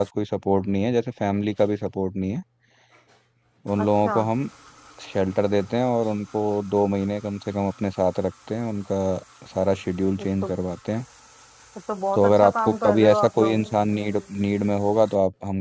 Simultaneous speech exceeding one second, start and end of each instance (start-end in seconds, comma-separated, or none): 12.2-13.6